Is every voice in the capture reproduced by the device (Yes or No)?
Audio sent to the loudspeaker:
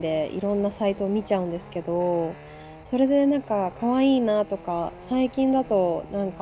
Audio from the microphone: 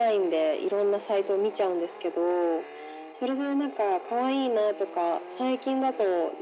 Yes